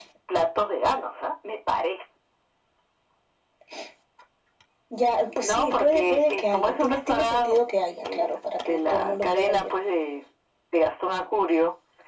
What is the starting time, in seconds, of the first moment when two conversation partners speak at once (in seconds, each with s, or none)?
5.4 s